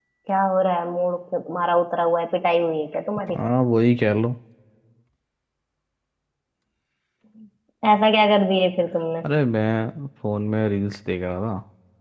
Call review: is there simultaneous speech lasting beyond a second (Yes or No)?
No